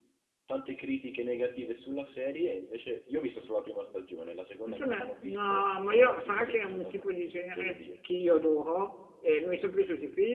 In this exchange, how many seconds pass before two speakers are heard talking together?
4.6 s

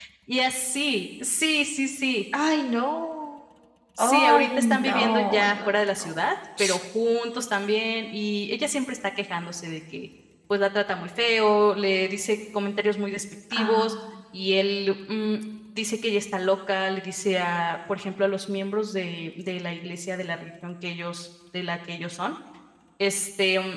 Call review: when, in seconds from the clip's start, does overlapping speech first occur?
4.0 s

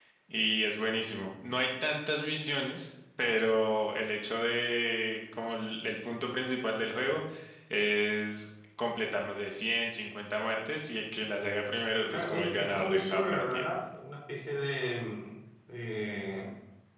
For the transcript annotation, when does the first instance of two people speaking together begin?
12.1 s

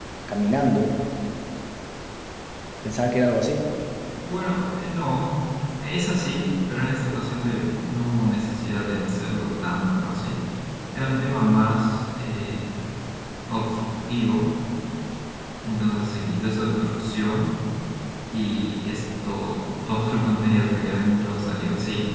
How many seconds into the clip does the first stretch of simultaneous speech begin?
none

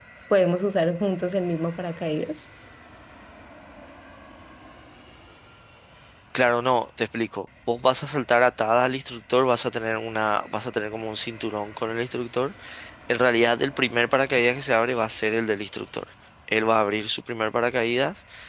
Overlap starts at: none

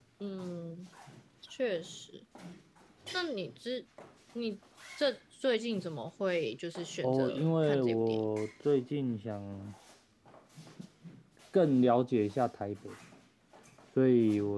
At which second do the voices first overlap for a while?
7.0 s

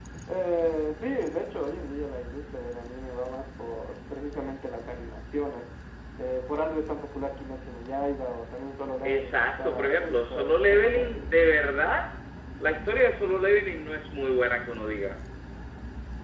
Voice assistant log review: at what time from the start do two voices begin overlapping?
9.0 s

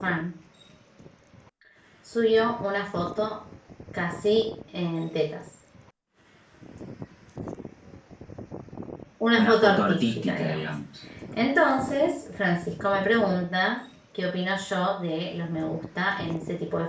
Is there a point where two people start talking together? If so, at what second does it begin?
9.4 s

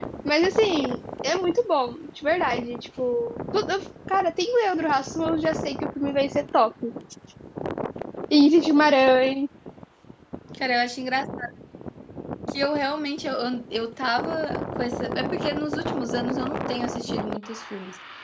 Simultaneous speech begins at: none

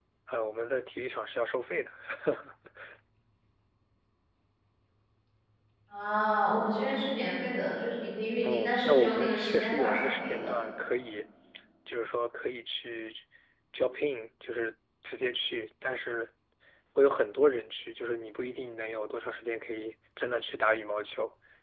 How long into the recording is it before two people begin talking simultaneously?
8.4 s

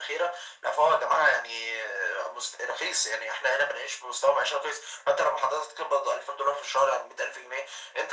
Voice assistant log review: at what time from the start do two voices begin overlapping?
none

